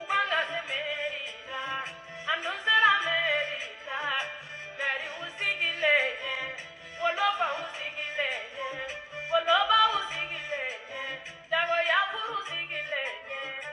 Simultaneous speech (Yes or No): No